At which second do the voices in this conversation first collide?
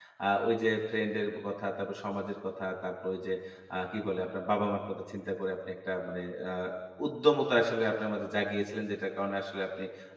none

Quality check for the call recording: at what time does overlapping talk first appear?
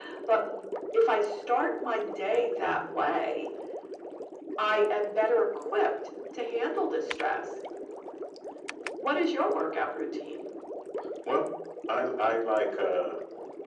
none

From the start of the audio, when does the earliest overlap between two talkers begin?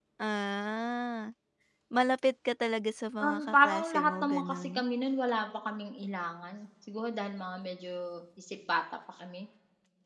3.2 s

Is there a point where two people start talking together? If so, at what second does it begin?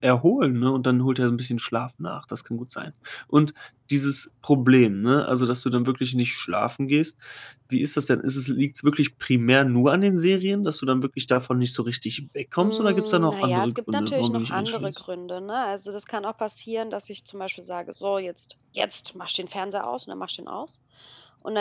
12.6 s

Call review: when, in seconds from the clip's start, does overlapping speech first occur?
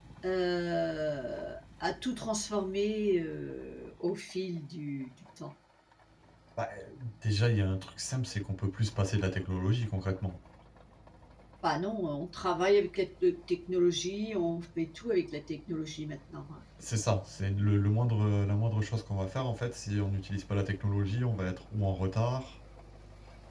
none

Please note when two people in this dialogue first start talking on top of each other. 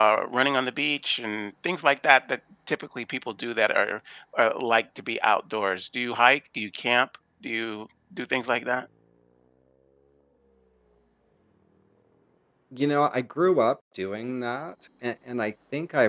none

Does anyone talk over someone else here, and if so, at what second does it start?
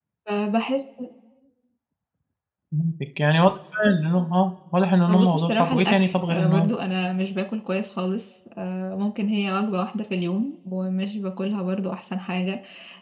5.1 s

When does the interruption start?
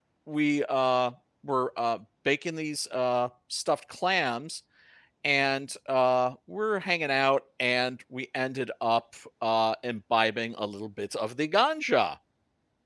none

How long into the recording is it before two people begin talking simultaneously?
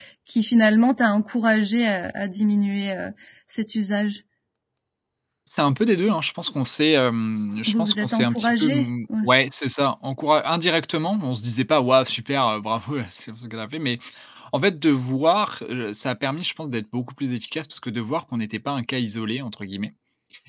7.7 s

